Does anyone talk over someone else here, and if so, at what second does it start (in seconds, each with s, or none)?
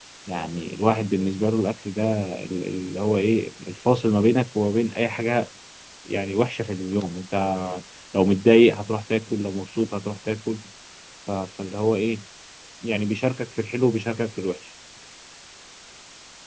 none